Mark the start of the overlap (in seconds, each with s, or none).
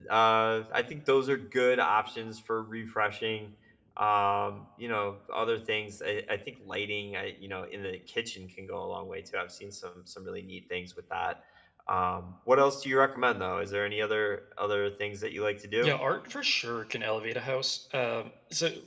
none